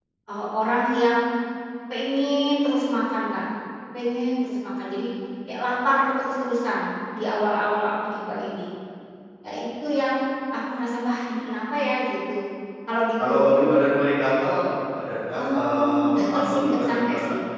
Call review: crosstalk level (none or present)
present